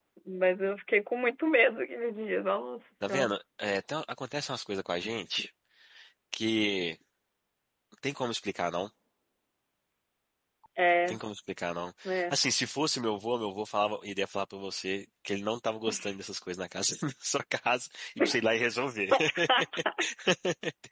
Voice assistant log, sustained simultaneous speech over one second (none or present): none